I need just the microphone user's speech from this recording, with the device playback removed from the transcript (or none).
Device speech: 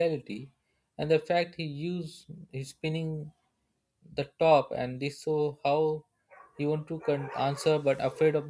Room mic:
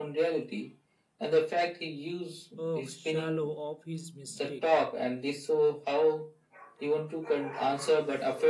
a shallow of his mistake.